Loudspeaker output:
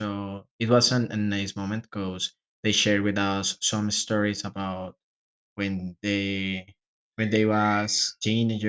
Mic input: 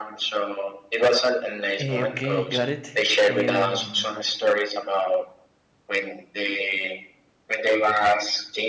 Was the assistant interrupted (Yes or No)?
Yes